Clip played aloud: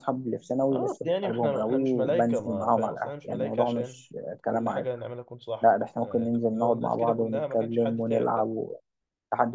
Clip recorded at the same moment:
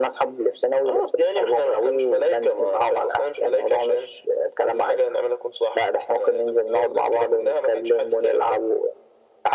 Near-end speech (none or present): none